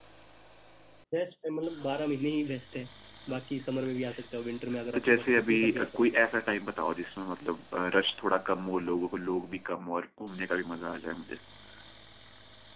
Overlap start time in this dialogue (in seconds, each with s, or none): 4.9 s